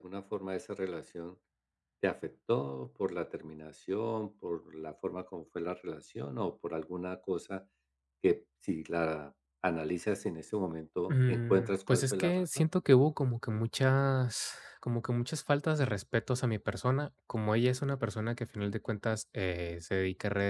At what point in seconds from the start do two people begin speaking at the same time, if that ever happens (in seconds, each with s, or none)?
11.1 s